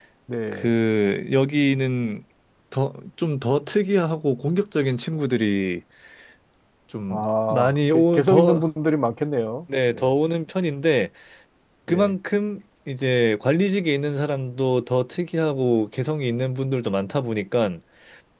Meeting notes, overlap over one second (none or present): present